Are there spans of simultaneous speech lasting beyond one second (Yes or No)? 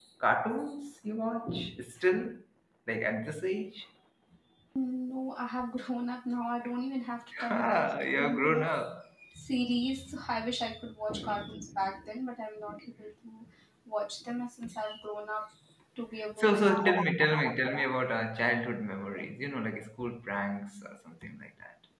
Yes